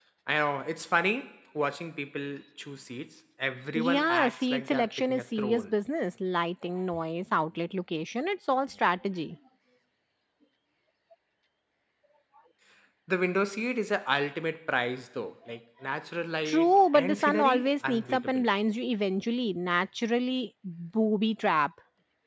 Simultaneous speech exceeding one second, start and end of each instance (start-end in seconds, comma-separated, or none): 3.8-5.7, 16.4-18.4